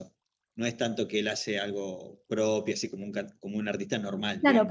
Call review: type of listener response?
taking over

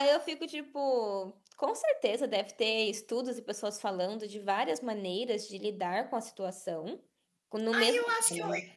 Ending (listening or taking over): taking over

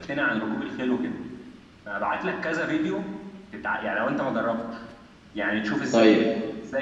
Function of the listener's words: listening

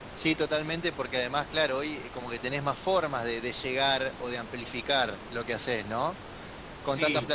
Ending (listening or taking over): listening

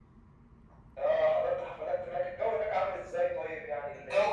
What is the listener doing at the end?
taking over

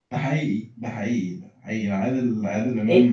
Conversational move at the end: taking over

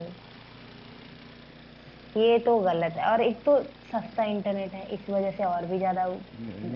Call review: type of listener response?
taking over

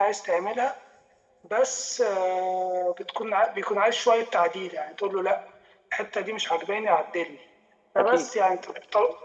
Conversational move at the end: listening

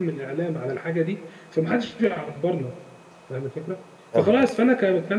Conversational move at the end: listening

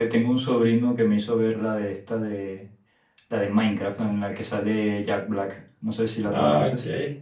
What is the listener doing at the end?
taking over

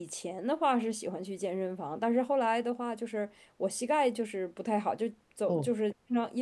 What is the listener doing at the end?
listening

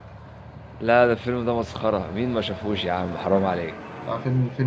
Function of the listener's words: taking over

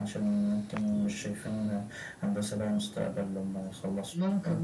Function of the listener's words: taking over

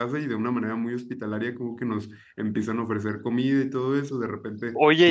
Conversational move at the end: taking over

